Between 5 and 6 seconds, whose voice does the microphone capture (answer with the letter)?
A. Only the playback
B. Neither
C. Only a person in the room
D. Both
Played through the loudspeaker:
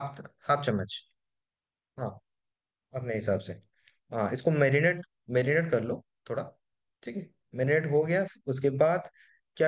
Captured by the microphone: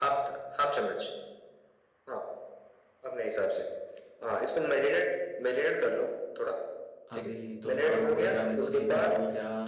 A